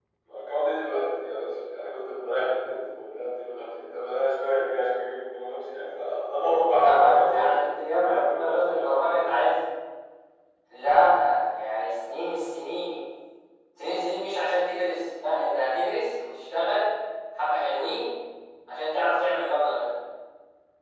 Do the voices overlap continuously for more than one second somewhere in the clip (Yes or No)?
Yes